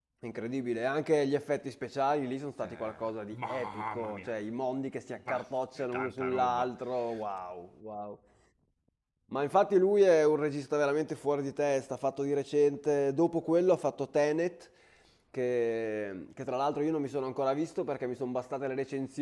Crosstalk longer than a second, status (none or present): present